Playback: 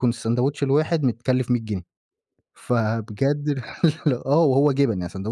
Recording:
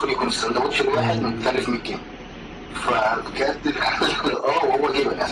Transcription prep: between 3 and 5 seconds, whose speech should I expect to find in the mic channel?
echo only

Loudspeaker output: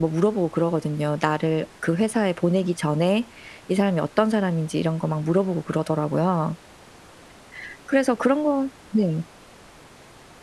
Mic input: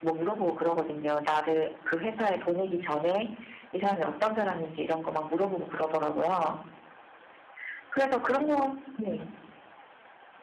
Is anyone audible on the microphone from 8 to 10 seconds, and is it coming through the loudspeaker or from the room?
echo only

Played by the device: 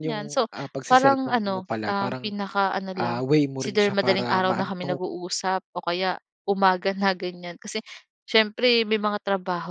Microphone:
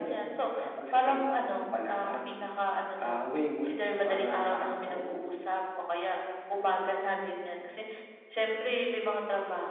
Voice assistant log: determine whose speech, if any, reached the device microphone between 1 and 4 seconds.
echo only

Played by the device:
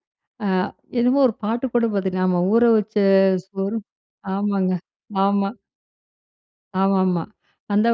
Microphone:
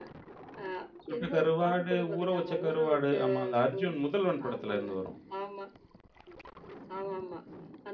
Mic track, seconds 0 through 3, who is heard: both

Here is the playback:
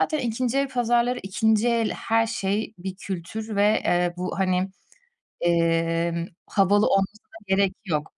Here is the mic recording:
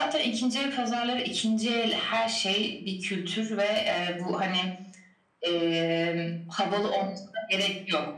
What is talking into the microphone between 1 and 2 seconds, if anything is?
echo only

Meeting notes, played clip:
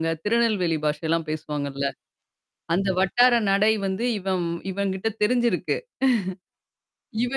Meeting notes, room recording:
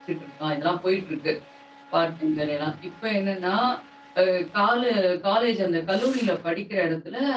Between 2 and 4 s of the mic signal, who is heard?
user only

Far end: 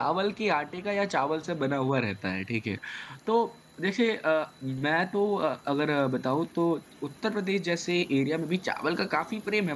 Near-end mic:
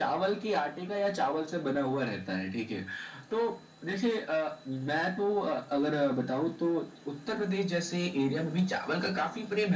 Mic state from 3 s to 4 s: echo only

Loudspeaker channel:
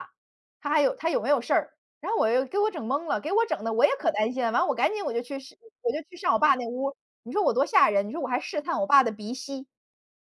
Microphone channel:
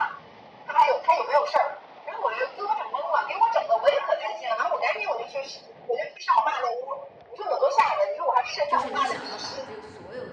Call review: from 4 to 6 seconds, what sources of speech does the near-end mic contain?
echo only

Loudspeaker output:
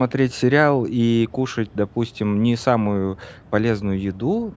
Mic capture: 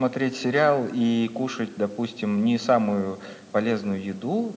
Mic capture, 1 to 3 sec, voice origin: echo only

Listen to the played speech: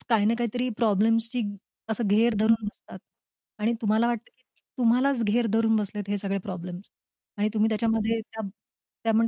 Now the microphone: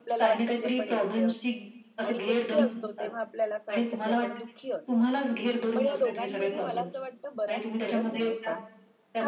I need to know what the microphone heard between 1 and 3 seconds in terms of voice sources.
both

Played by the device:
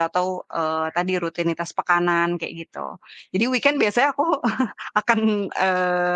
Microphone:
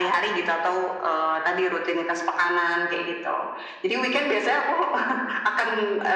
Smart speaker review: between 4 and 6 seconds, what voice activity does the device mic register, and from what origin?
echo only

